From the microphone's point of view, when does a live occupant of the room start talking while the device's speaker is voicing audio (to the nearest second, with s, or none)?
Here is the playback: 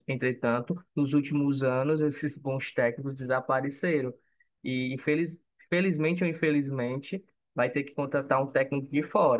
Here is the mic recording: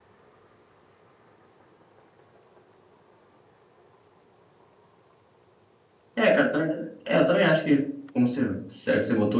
6 s